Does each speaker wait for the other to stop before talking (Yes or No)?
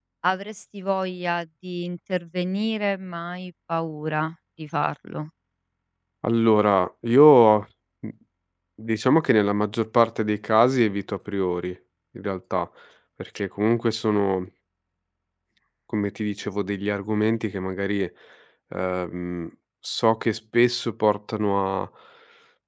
Yes